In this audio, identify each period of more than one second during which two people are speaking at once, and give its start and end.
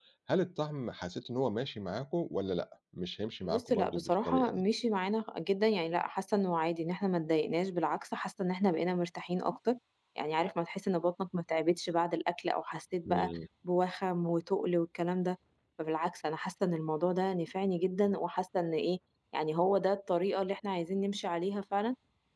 3.4-4.6

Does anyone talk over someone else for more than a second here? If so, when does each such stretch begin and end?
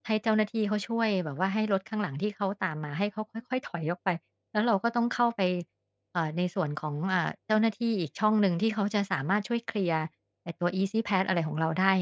none

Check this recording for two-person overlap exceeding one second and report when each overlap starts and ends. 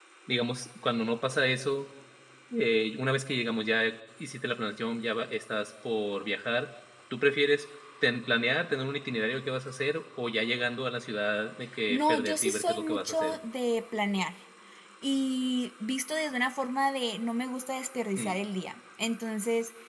11.9-13.4

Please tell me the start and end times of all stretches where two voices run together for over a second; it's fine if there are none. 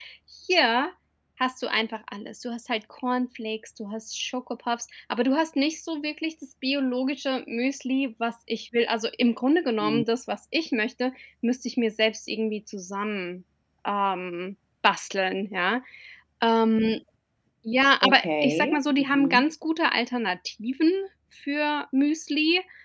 18.0-19.4

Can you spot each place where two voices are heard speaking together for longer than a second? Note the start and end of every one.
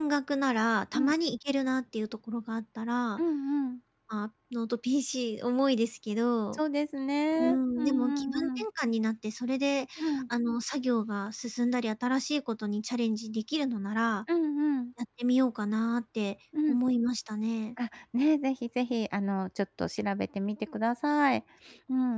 7.4-8.6

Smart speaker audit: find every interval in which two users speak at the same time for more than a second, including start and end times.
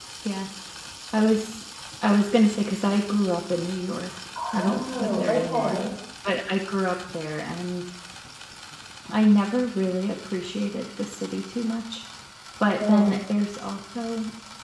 4.5-5.8

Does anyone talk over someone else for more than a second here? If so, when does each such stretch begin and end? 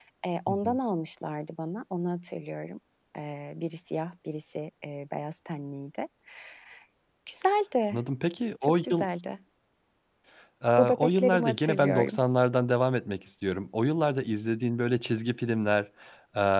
10.8-12.2

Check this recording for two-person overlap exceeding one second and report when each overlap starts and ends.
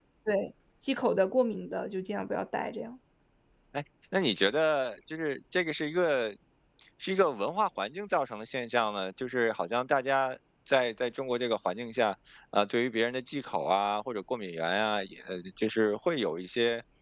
none

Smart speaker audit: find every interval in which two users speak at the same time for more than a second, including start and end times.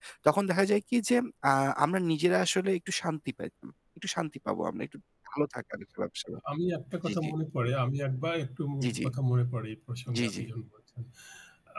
none

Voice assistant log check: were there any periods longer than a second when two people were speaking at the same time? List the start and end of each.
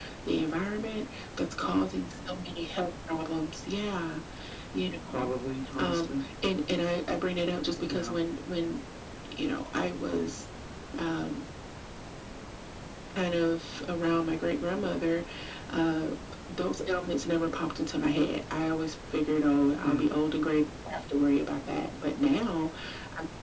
none

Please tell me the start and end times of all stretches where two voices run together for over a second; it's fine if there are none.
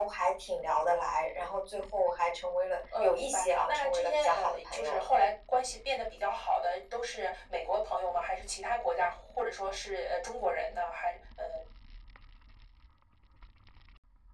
3.0-5.1

